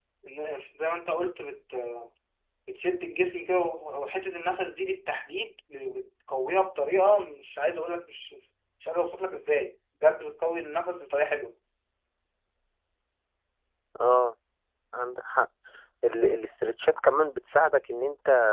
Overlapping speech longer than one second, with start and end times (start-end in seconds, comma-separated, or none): none